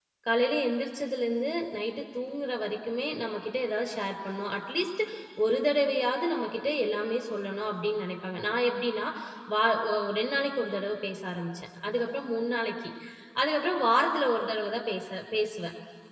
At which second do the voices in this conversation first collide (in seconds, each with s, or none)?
none